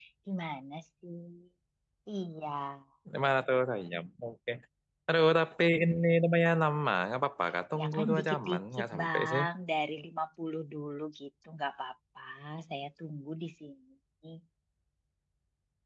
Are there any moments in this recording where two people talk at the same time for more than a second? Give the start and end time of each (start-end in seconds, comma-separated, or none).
7.8-9.4